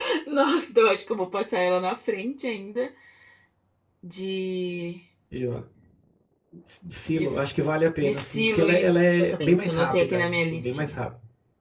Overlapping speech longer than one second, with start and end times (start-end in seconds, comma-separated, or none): 8.0-11.0